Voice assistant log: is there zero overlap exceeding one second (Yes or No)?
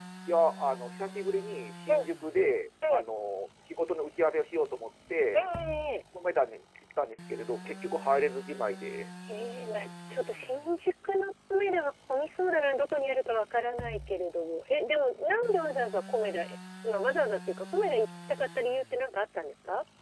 Yes